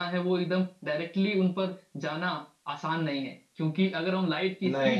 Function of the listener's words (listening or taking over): listening